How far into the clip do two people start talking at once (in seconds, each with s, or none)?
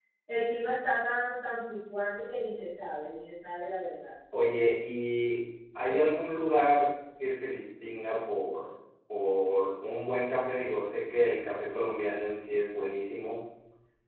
none